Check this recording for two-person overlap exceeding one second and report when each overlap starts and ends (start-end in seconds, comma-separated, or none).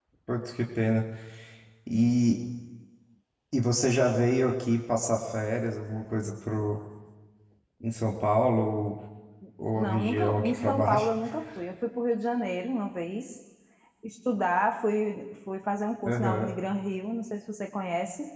9.8-11.1